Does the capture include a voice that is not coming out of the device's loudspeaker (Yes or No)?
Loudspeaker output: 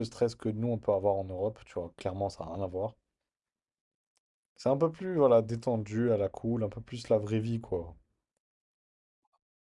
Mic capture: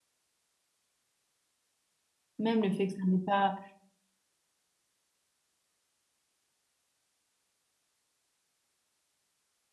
Yes